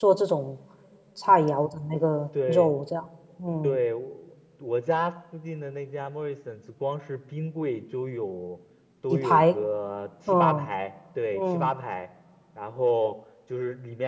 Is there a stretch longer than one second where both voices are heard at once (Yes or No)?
No